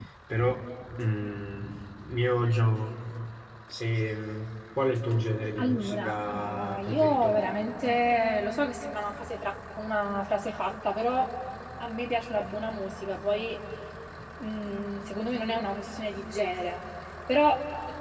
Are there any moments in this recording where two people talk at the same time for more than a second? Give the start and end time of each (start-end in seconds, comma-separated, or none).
5.6-7.4